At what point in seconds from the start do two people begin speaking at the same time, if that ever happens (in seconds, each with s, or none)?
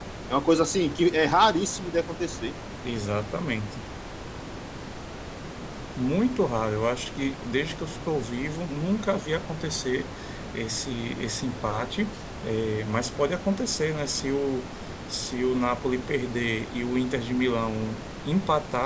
none